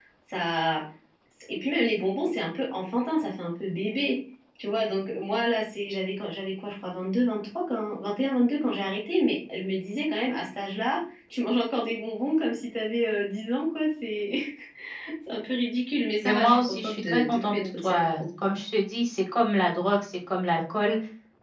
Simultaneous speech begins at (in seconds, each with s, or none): 16.2 s